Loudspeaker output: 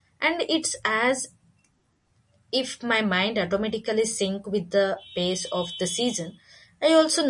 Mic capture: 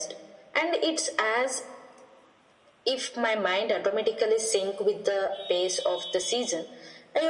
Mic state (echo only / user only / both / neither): echo only